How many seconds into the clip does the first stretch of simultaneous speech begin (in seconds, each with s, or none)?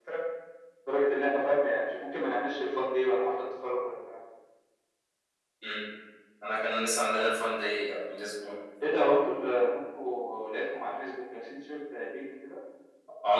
none